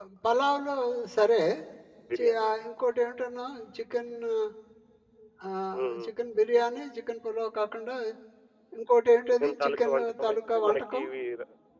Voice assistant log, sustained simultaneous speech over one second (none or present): present